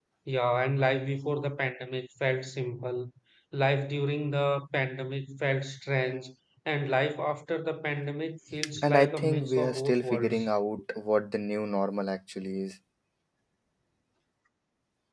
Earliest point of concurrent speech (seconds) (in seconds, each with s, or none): 8.6 s